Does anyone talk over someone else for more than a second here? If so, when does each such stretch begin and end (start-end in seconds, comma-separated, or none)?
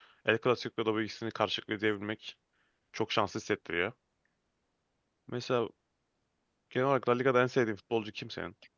none